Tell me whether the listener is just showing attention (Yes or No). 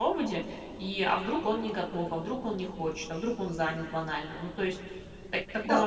No